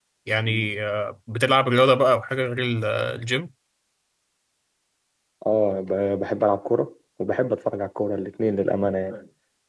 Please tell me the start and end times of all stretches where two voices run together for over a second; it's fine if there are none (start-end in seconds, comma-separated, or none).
none